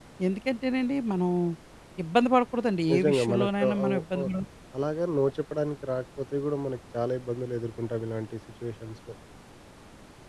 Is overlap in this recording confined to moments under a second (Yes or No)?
No